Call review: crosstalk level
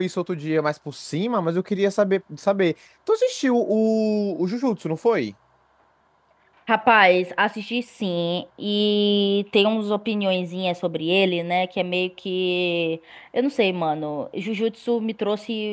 none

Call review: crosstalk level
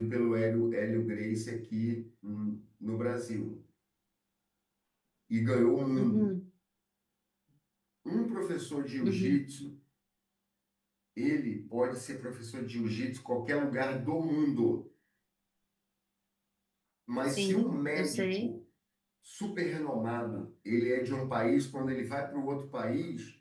present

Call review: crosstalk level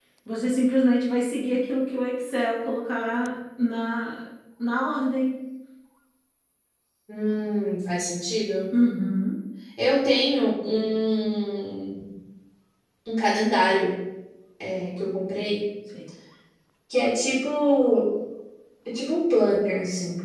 none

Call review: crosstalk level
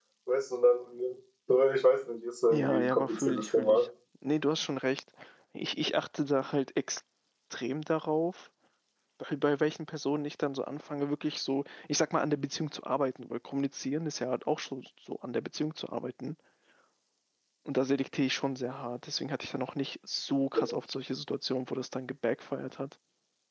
present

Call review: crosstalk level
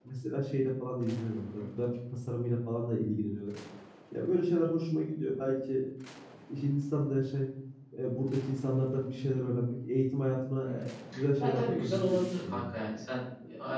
present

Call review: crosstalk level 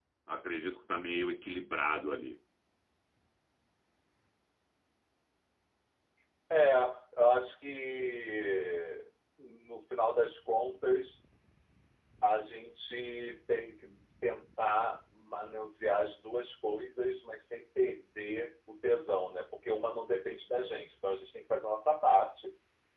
none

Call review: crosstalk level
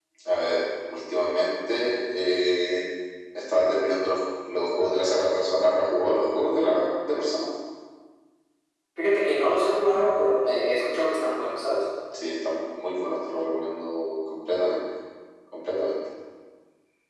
none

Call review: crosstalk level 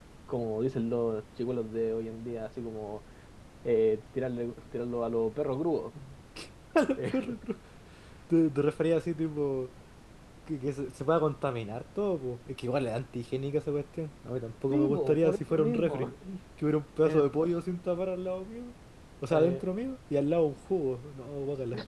present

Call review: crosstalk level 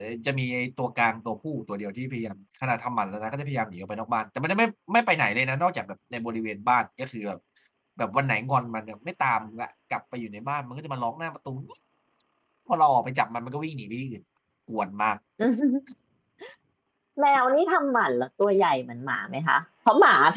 none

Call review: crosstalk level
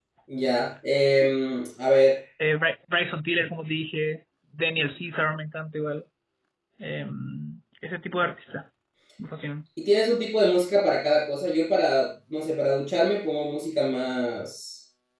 none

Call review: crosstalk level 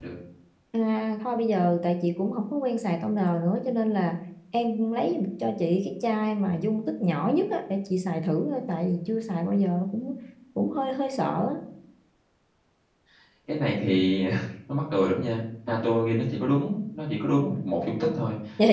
none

